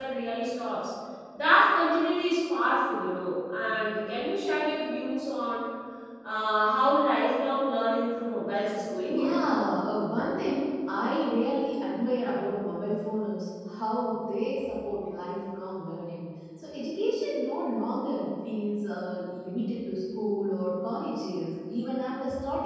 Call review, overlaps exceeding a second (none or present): none